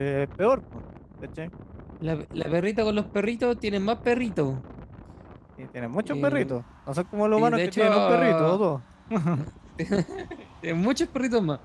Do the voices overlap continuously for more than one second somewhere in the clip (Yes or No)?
Yes